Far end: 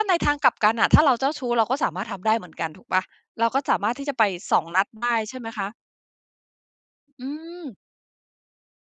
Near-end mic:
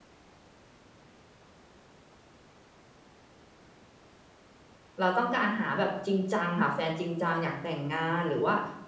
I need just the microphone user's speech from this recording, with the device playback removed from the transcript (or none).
เราต้องการหาแบบจริงจัง หาแฟนจริงจัง อยากแต่งงาน หรือว่า